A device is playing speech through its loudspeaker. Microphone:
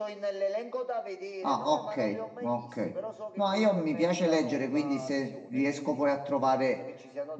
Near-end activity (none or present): present